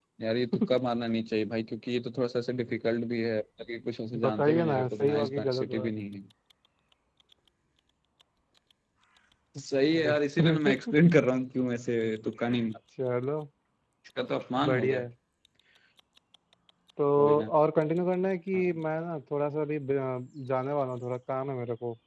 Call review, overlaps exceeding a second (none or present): present